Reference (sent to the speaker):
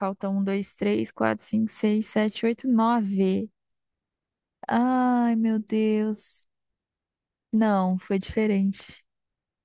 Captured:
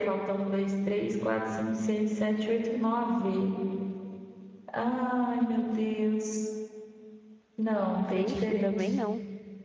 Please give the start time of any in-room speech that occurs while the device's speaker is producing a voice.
8.1 s

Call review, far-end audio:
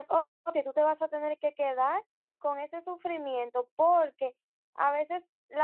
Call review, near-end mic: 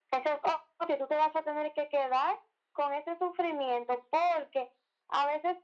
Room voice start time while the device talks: none

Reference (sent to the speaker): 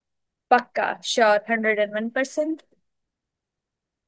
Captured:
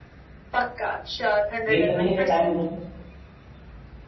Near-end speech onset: 1.7 s

